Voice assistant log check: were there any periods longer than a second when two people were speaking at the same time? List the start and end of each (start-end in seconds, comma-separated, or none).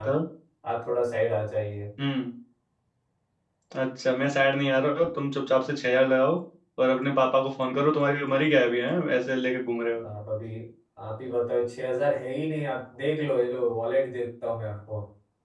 none